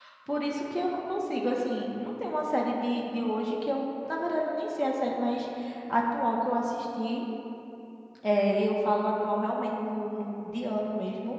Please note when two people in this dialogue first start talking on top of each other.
none

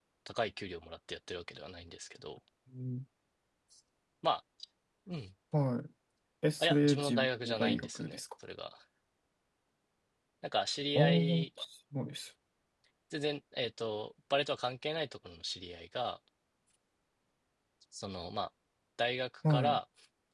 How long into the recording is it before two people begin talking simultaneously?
6.6 s

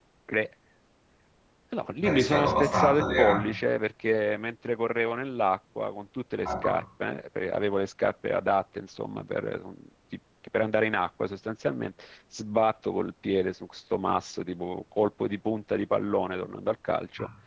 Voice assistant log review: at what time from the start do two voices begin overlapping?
2.0 s

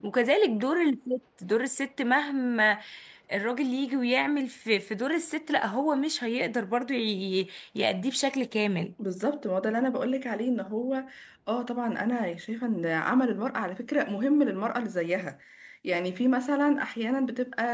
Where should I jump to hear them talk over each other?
none

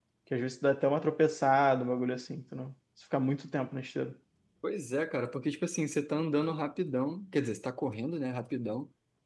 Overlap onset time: none

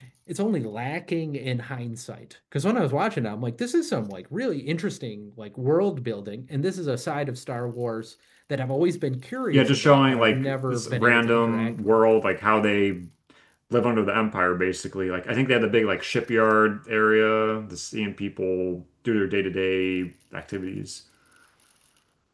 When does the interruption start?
9.5 s

